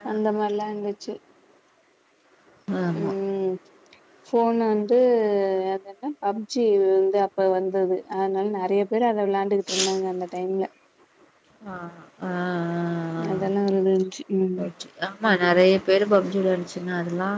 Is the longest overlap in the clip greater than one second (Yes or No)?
No